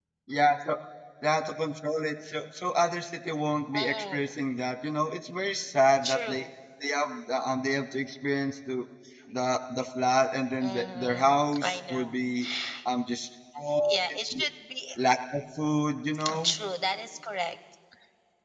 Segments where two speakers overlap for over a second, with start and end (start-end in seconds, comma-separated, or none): 10.6-12.2